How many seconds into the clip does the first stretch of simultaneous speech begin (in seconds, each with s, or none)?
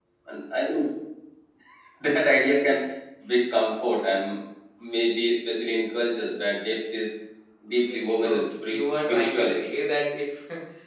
7.9 s